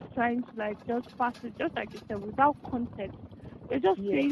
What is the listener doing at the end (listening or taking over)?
listening